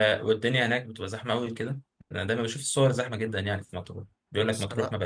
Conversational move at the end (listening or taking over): listening